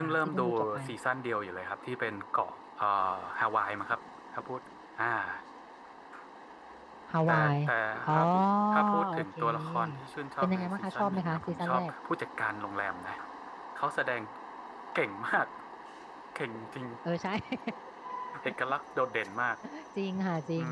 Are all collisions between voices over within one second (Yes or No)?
No